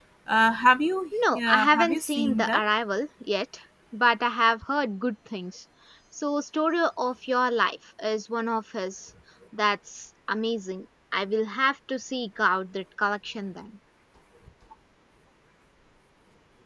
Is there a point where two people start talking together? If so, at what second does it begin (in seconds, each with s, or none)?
1.1 s